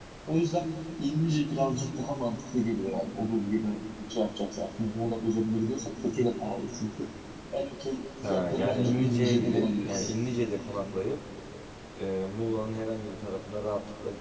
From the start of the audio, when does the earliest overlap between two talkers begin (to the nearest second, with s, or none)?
8 s